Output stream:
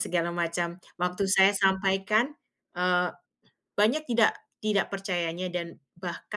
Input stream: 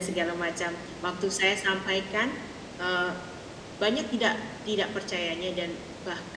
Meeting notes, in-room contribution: none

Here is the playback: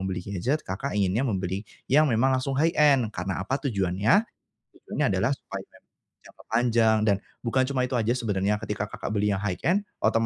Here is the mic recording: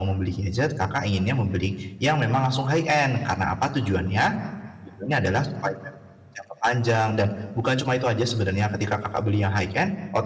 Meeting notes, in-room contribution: none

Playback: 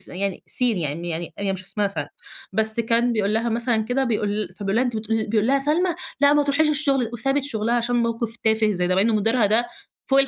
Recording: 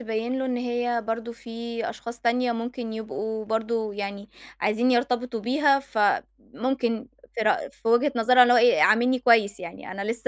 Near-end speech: present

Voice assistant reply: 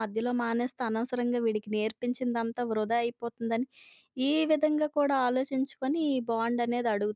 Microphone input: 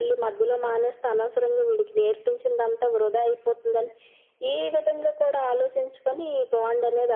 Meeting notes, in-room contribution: none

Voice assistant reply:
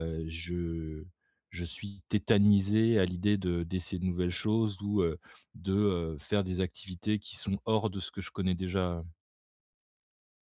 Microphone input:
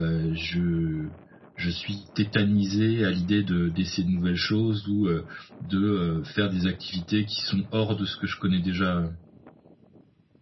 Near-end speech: none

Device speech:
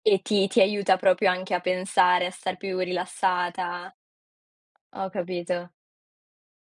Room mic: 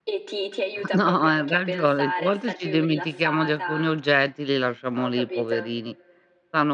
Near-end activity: present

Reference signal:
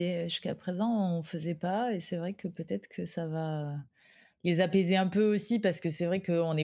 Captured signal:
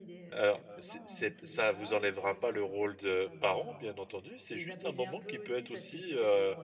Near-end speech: present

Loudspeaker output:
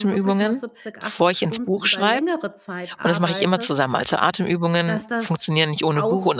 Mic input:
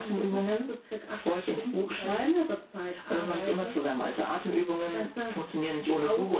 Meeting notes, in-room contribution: none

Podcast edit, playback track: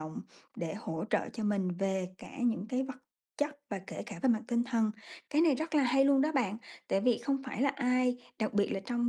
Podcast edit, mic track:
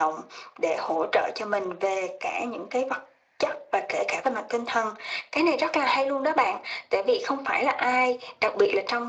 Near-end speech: none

